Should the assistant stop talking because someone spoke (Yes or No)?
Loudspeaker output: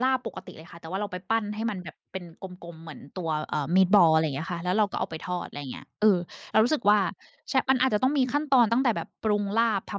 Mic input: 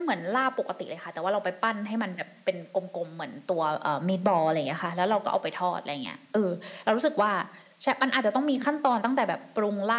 No